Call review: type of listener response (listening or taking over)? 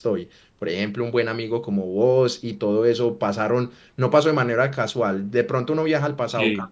listening